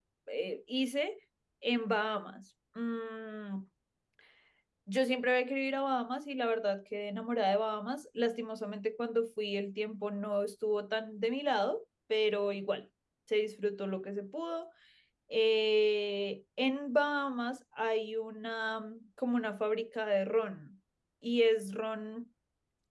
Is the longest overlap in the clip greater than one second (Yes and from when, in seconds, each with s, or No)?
No